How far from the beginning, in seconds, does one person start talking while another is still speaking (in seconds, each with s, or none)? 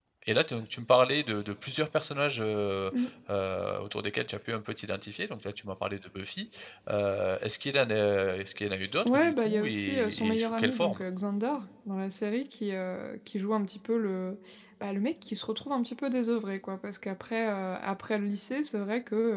9.0 s